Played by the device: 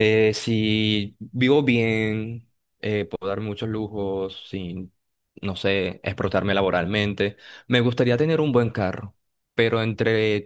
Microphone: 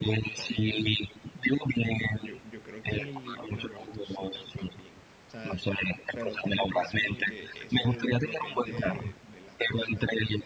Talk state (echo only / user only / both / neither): both